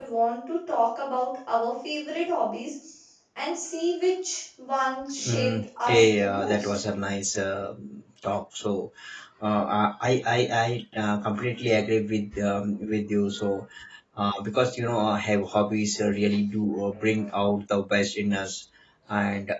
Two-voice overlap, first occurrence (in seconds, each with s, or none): 5.2 s